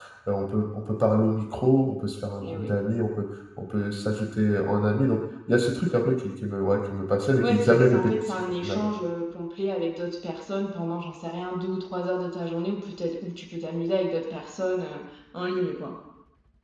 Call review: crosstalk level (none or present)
present